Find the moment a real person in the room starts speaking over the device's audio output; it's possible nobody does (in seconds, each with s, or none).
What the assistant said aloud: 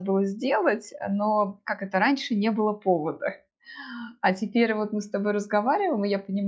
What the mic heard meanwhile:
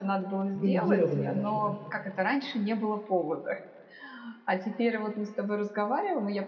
0.5 s